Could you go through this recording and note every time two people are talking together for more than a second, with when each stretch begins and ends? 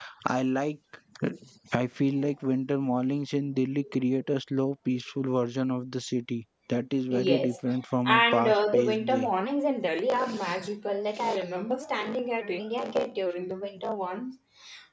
8.1-9.3

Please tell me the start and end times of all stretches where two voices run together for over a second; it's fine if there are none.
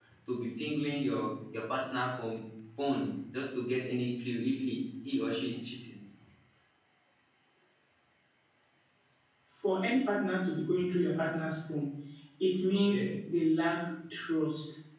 none

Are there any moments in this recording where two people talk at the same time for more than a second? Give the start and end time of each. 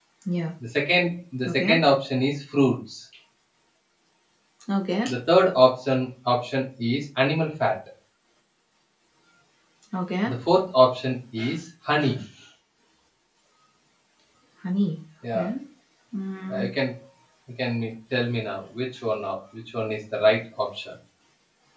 none

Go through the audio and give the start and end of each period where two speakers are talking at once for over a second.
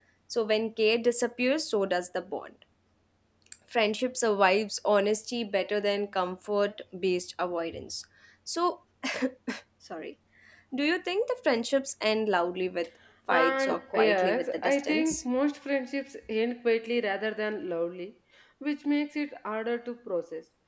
13.3-15.2

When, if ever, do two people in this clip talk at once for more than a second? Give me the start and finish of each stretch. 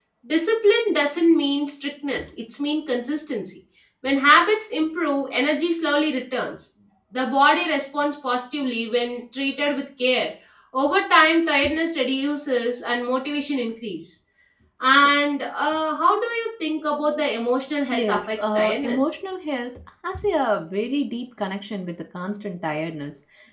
17.9-19.1

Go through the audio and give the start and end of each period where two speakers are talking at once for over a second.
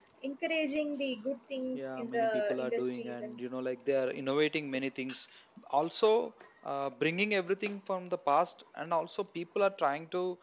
1.8-3.4

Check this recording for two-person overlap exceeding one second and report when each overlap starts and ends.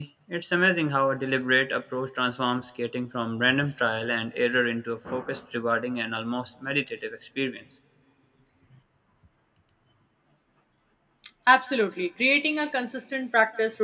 none

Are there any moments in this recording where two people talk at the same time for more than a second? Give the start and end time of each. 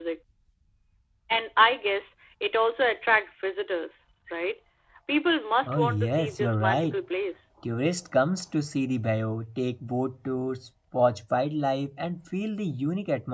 5.6-7.0

